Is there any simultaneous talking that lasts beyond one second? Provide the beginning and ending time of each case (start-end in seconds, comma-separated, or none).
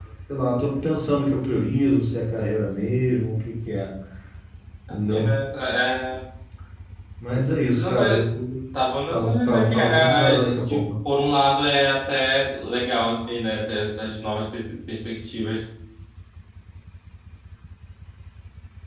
9.1-10.9